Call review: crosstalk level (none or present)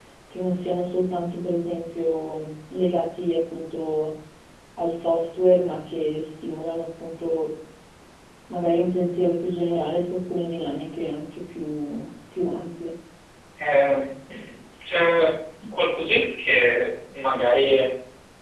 none